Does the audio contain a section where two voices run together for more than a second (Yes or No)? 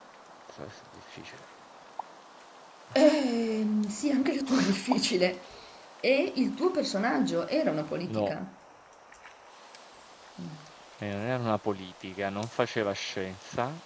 No